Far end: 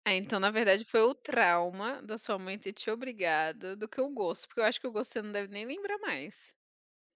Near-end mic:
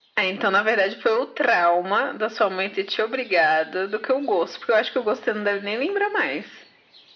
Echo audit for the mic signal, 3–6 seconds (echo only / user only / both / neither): echo only